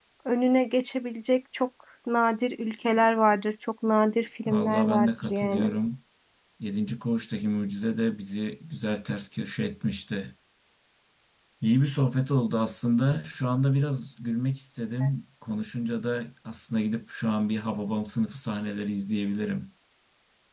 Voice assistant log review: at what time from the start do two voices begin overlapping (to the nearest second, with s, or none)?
4 s